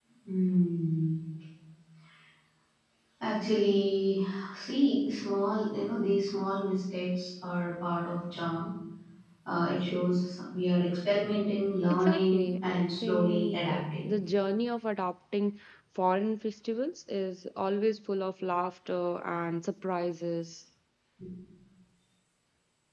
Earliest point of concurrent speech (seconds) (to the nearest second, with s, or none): 12 s